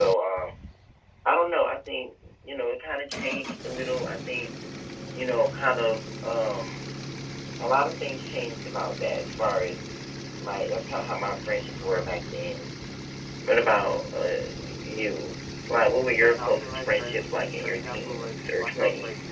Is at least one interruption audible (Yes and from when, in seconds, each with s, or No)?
Yes, from 16.2 s